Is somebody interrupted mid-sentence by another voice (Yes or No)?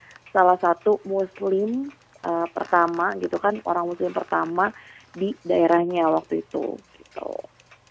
No